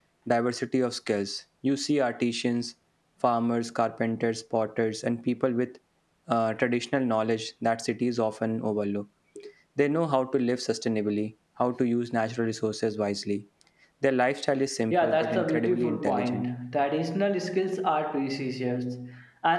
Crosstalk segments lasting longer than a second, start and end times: 14.9-16.4

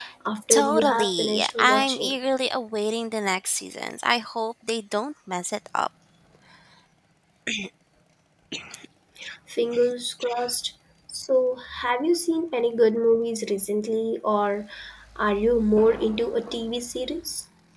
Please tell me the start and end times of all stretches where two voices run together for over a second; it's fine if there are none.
0.5-2.1

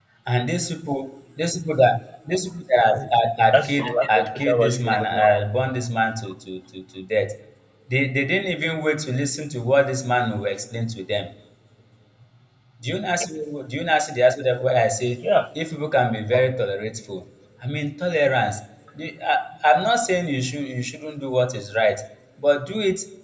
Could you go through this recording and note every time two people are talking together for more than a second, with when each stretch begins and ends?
3.5-5.4

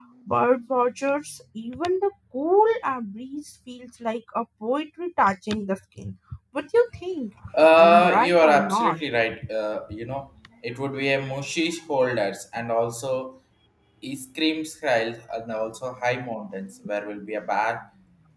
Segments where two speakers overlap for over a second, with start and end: 7.8-9.0

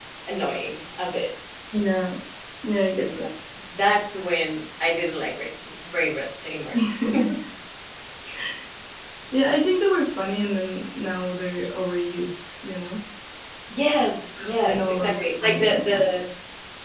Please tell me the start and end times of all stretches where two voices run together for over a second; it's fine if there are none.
14.6-16.0

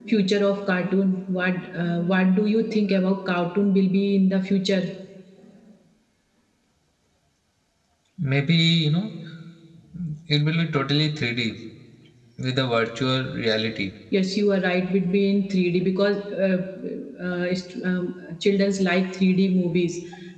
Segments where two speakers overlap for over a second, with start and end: none

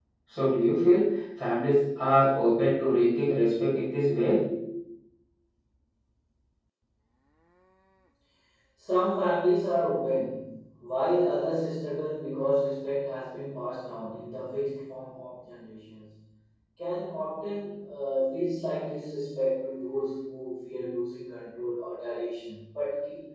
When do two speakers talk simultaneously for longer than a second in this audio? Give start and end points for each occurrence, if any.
none

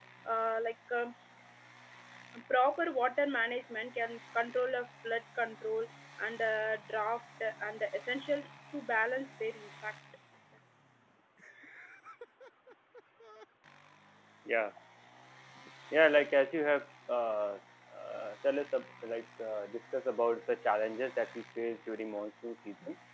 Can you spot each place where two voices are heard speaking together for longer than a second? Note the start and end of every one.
none

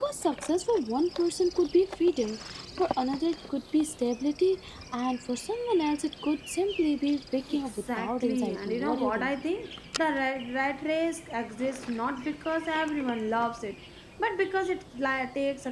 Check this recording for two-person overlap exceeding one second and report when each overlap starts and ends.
7.5-9.3

